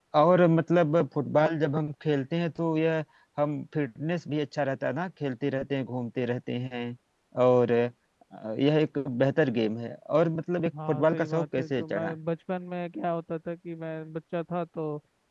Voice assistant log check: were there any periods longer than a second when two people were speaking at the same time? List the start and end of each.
10.9-12.2

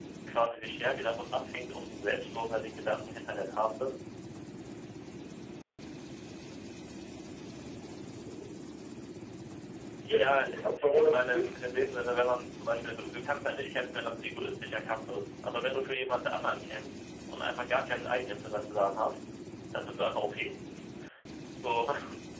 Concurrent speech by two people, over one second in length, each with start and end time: 10.0-11.5

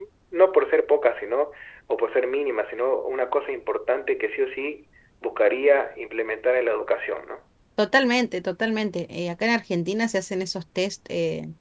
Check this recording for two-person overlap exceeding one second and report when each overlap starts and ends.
none

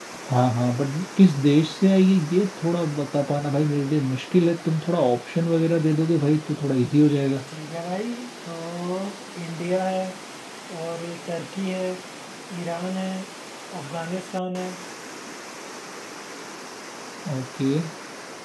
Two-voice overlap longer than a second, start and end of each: none

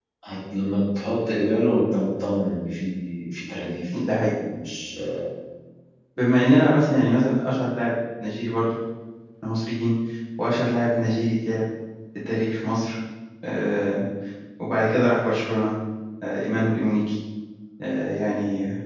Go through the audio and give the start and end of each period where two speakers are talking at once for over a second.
none

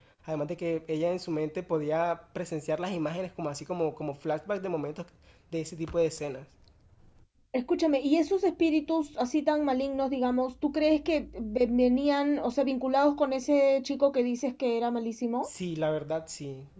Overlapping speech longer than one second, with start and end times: none

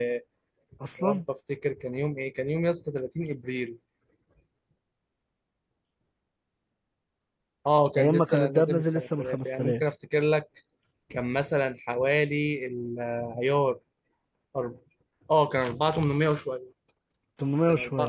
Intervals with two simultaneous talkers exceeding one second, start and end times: 8.0-9.8

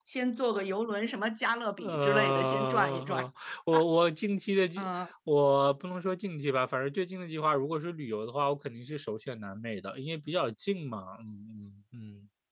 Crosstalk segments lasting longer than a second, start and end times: 1.8-3.3

